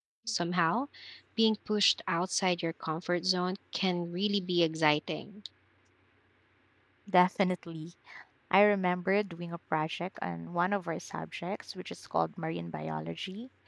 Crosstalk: none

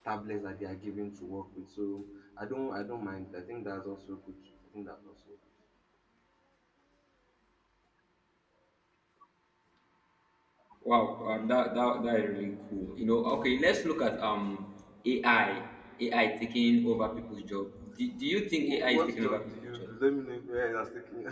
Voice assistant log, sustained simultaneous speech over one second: present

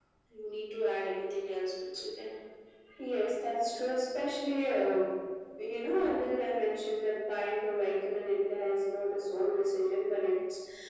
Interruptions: none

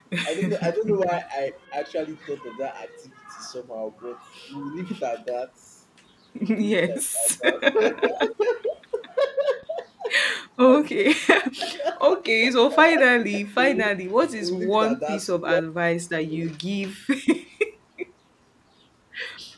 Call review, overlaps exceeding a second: present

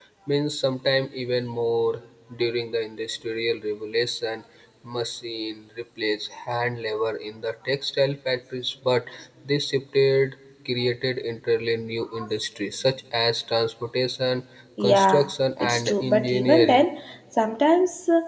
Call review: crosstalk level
present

